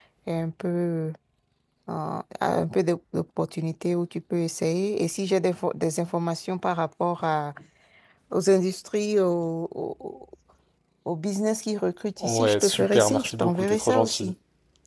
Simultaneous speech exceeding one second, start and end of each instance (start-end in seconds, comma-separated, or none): 12.2-14.3